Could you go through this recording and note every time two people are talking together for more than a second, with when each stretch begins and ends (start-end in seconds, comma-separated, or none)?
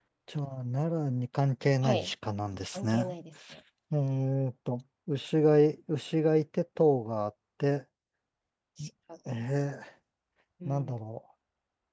none